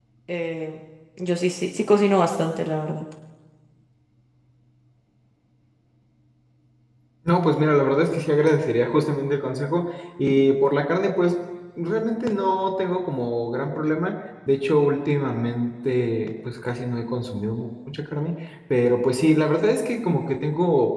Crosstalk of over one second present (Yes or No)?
No